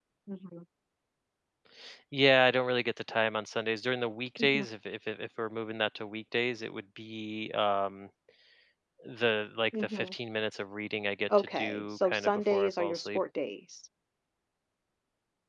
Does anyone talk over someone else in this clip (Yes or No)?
Yes